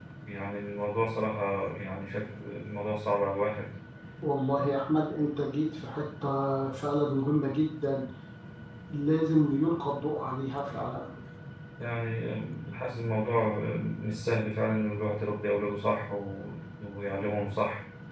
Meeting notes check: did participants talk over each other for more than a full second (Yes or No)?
No